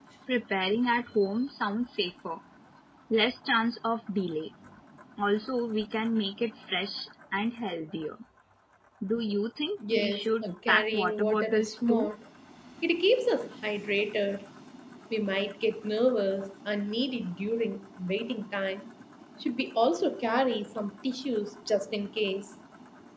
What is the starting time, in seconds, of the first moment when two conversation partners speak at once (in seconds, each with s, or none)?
9.9 s